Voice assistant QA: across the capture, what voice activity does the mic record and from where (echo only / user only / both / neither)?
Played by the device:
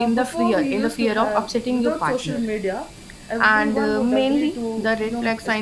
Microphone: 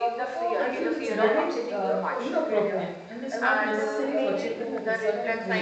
both